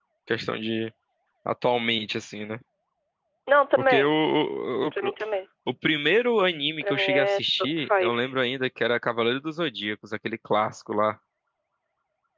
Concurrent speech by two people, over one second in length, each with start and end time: 6.8-8.2

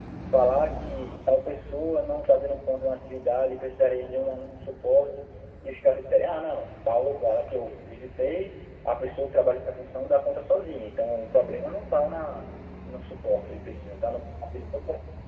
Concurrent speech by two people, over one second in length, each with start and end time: none

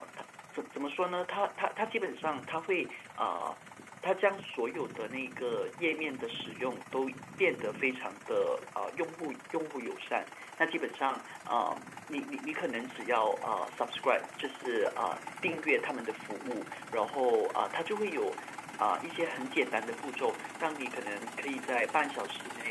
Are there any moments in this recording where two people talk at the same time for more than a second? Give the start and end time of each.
none

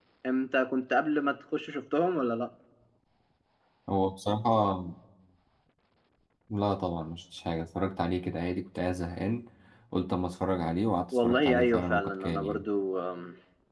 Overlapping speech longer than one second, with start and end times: 11.1-12.6

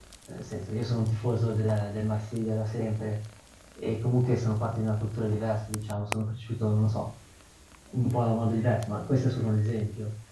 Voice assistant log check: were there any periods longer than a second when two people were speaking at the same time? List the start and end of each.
none

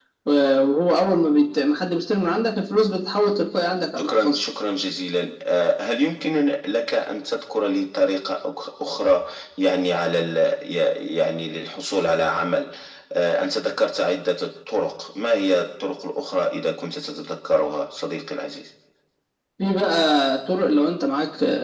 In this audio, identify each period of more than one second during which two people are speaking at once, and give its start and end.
none

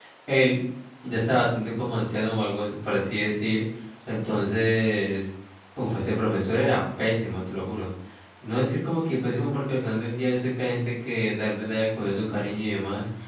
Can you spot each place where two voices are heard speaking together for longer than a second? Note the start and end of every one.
none

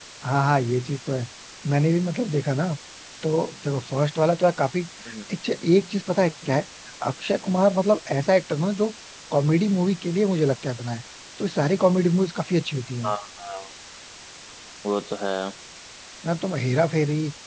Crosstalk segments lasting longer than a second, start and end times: none

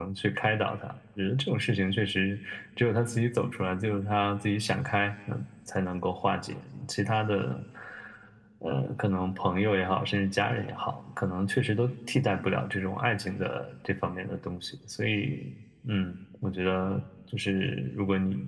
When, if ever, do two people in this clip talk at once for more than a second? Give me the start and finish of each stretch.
none

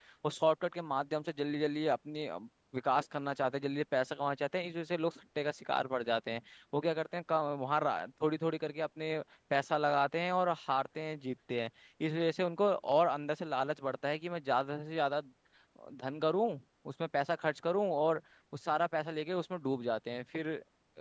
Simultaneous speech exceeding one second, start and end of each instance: none

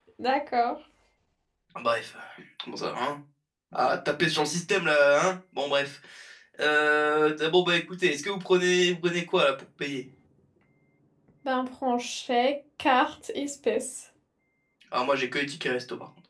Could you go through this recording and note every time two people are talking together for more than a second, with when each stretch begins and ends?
none

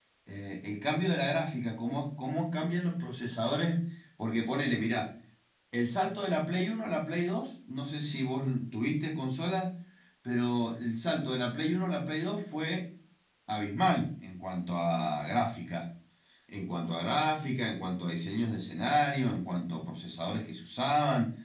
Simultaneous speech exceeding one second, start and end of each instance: none

